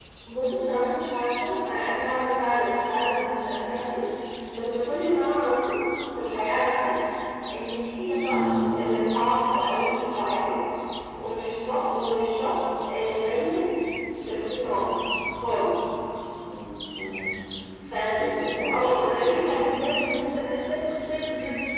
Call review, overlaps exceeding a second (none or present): none